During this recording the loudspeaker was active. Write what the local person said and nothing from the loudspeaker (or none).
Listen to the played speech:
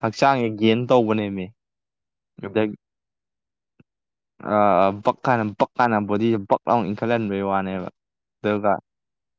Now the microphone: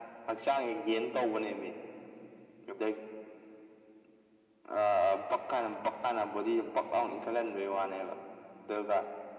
none